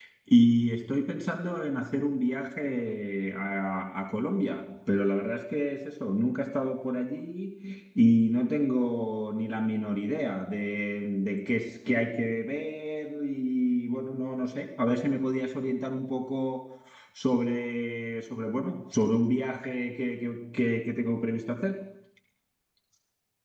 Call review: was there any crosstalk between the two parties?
No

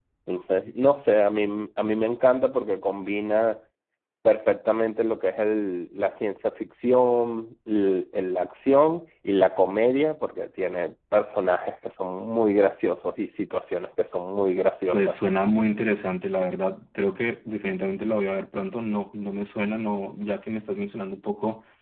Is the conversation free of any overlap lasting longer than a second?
Yes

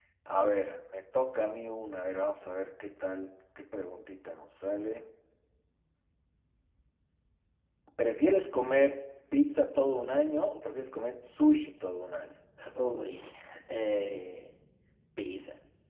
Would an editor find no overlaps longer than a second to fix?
Yes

